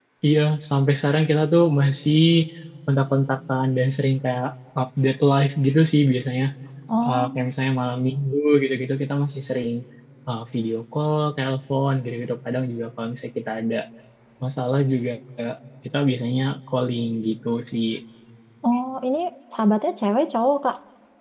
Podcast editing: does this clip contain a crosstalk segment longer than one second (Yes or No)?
No